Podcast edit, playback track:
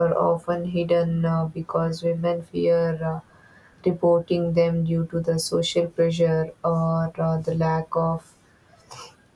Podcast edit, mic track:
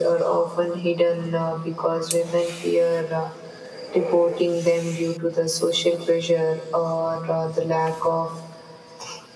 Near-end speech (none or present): none